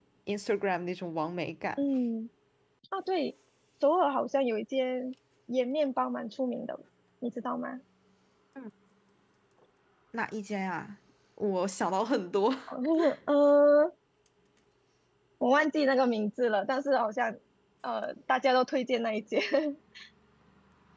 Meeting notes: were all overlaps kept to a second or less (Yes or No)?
Yes